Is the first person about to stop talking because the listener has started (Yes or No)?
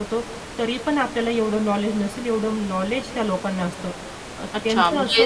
Yes